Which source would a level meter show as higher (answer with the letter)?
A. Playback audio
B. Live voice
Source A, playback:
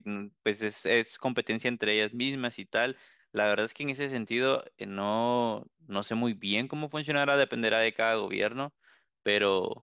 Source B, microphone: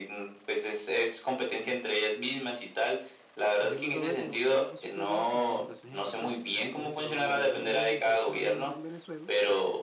A